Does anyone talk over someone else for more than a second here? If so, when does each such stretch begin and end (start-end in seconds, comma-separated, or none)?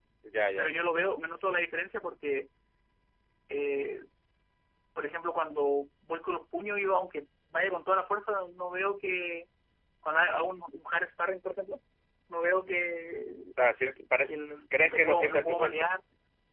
14.7-16.0